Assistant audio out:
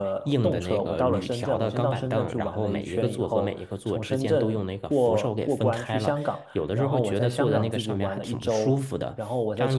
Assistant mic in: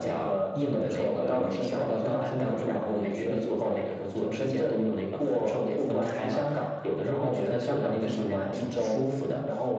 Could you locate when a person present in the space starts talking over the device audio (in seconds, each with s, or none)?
none